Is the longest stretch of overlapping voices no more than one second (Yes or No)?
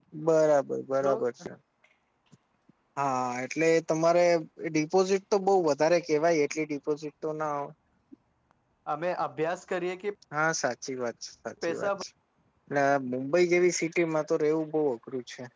Yes